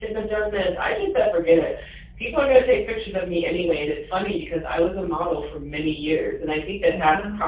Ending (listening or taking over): listening